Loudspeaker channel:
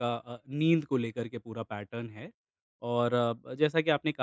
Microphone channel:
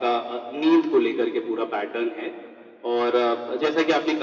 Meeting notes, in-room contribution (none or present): none